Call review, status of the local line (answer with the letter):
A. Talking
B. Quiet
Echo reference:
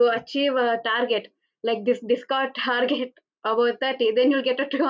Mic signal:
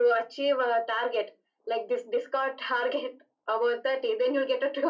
B